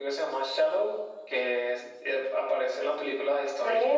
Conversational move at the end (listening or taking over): taking over